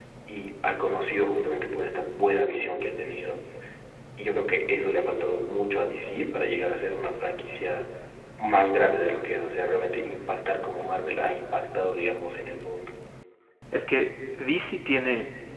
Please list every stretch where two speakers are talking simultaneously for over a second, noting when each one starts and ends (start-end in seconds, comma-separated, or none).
none